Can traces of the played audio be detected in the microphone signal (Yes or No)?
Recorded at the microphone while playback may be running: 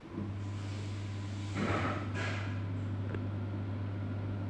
No